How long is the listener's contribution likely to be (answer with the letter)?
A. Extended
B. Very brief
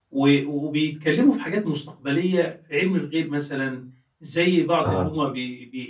B